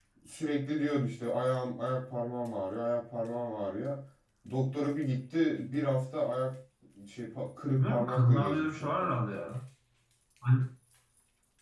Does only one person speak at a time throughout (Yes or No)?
No